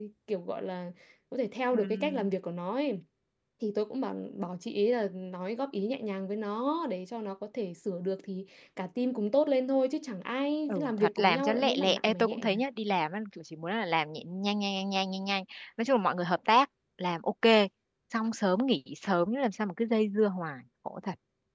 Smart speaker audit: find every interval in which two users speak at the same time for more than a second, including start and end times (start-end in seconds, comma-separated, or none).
10.7-12.6